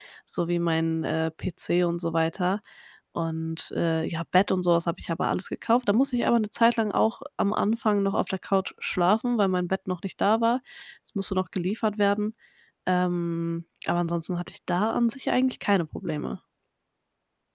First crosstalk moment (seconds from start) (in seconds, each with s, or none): none